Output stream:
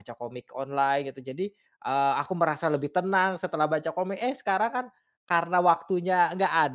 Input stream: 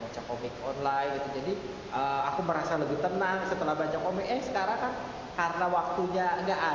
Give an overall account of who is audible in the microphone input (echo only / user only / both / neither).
echo only